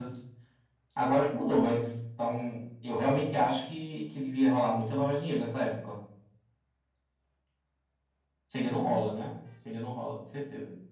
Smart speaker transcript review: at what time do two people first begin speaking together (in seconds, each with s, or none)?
none